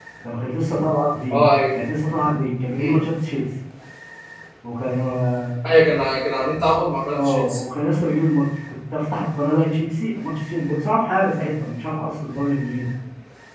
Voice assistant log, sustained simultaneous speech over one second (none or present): none